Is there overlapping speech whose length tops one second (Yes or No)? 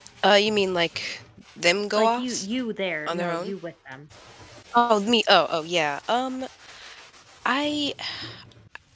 No